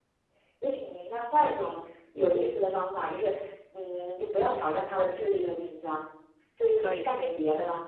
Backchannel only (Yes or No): Yes